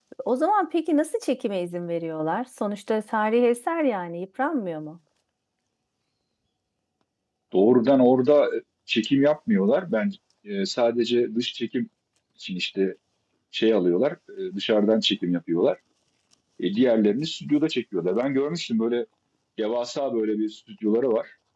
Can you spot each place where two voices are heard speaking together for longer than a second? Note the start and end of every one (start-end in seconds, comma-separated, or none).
none